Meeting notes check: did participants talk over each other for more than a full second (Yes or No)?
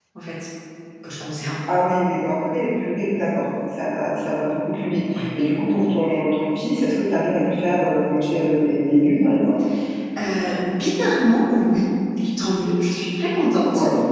No